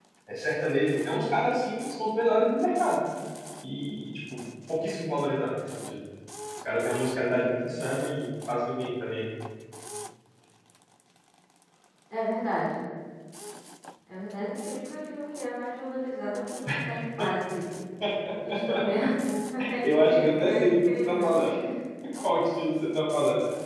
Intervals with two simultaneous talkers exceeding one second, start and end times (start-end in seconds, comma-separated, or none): 19.8-21.3